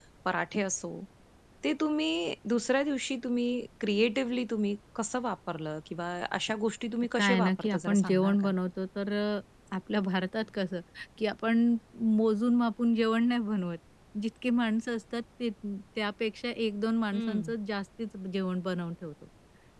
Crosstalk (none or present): present